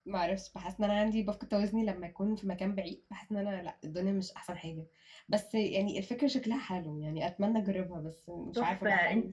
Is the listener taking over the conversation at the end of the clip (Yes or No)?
Yes